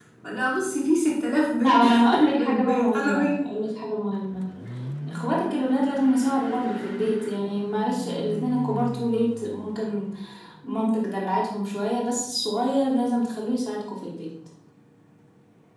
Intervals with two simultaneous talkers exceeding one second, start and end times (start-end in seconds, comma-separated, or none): 1.6-3.4